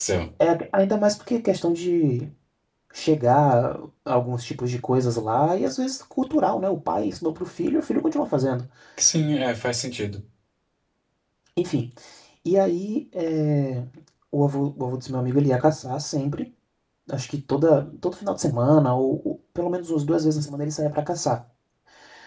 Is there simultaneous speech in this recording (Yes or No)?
No